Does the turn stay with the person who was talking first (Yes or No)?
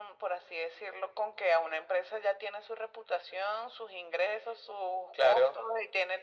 Yes